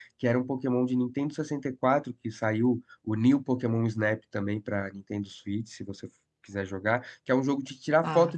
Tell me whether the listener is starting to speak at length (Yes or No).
No